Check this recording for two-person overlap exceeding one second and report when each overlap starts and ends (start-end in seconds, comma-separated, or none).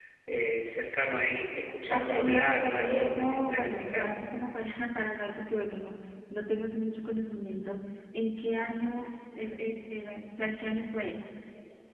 1.9-4.2